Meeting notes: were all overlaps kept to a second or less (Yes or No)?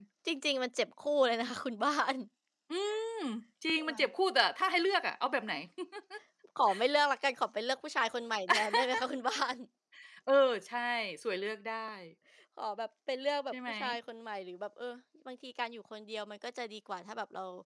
Yes